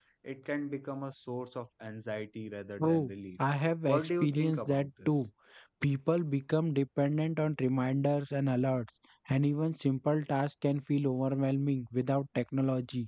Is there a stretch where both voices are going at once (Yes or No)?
Yes